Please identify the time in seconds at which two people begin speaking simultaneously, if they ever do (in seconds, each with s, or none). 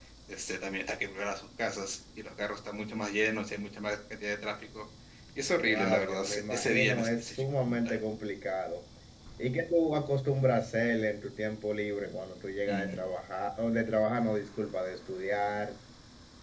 5.6 s